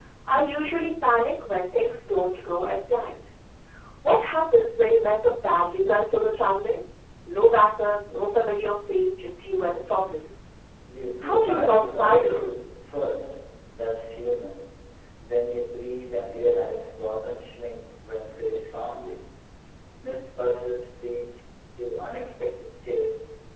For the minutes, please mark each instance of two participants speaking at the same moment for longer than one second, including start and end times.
11.2-12.5

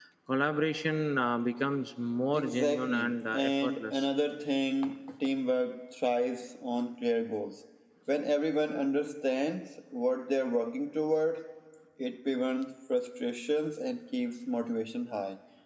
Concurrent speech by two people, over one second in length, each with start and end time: 2.3-4.1

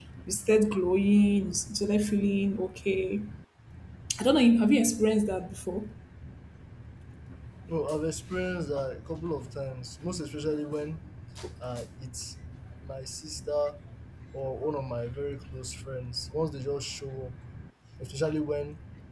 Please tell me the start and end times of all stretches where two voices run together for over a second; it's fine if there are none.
none

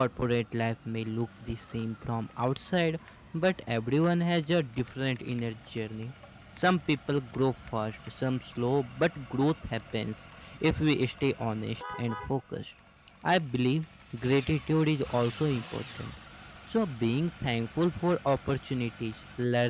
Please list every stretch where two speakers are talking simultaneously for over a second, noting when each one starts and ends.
none

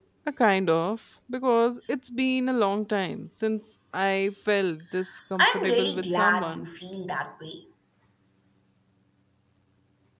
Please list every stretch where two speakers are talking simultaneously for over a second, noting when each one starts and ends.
5.4-6.7

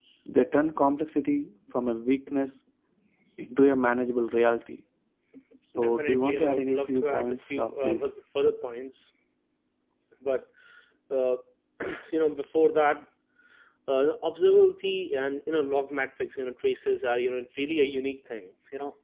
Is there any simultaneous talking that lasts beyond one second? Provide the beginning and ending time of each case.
5.8-8.1

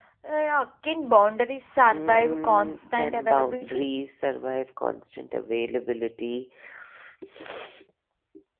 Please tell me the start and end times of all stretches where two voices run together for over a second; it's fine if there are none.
1.8-3.8

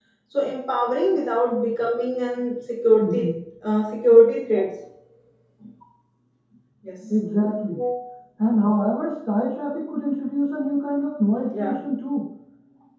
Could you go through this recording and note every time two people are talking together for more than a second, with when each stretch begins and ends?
none

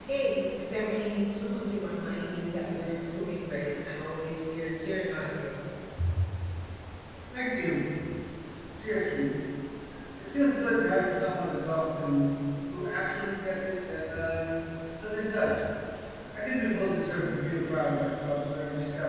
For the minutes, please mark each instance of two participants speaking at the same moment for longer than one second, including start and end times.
none

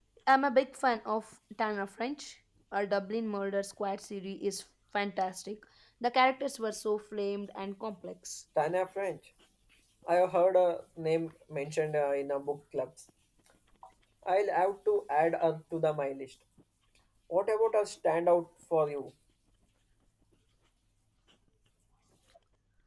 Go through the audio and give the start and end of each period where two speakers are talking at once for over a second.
none

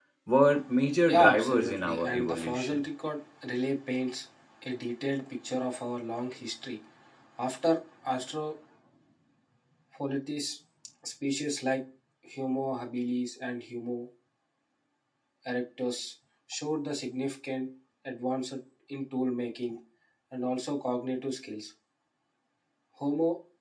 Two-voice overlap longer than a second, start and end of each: 1.1-2.9

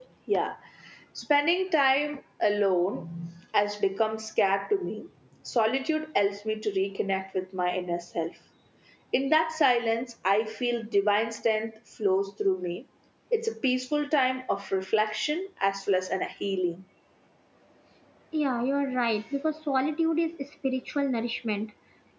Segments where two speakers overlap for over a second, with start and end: none

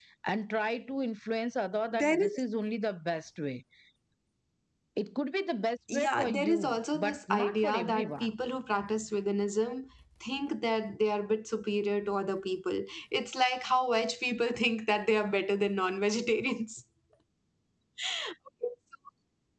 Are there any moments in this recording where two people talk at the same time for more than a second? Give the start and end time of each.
5.9-8.3

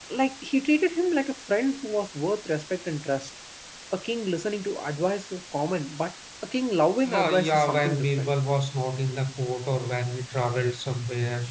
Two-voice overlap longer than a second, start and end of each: 7.1-8.3

